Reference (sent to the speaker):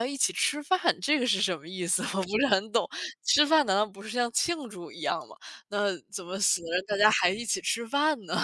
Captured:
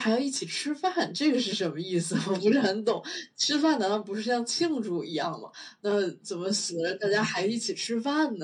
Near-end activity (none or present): none